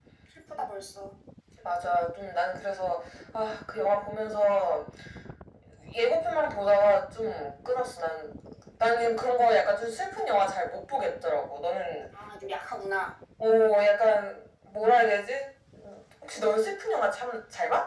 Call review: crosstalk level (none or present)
none